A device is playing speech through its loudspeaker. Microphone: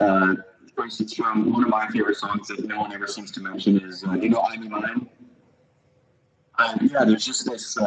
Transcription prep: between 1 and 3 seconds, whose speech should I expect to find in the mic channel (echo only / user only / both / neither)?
echo only